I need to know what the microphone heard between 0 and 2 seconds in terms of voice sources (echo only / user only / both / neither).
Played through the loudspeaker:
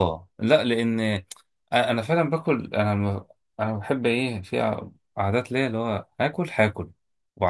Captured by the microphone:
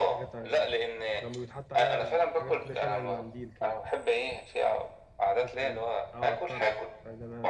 both